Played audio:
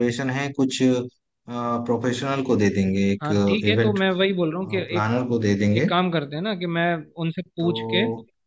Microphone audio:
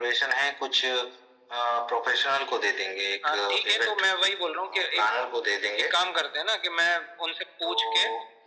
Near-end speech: none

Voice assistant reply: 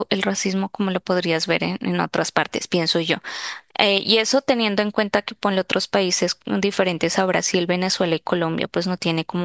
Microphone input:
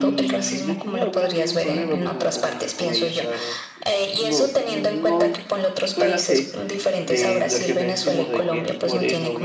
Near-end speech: present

